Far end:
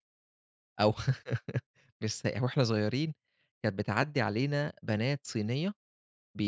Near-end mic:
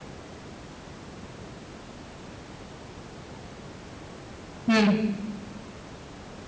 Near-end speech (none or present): present